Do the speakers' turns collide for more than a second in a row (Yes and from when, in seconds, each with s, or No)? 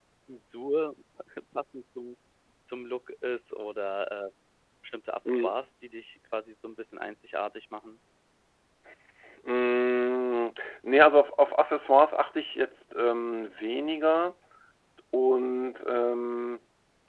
No